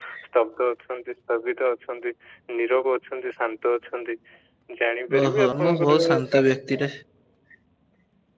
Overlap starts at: 5.2 s

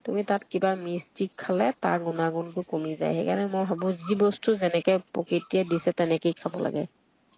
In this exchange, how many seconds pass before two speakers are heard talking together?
none

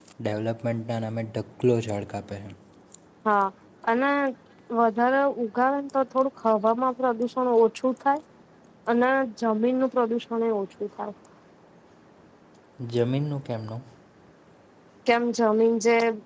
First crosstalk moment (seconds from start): none

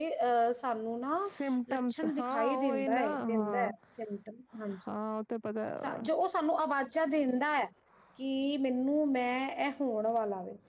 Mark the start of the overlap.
1.7 s

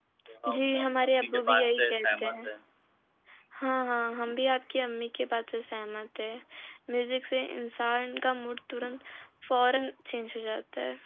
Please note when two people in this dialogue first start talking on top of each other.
0.5 s

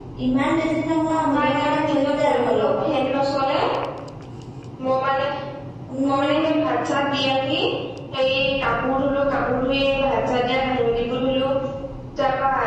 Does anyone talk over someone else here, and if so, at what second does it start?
1.1 s

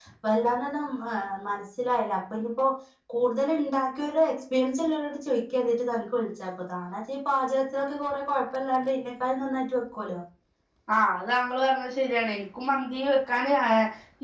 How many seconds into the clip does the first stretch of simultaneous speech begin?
none

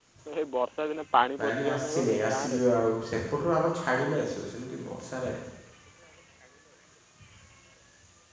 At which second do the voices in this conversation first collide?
1.4 s

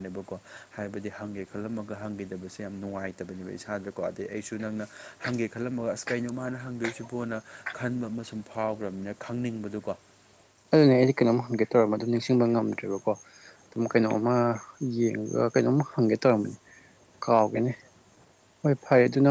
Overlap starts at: none

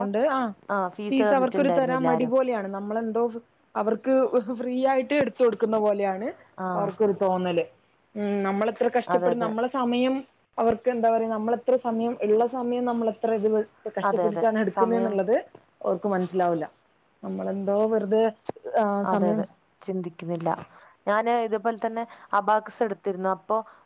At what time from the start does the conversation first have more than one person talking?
1.1 s

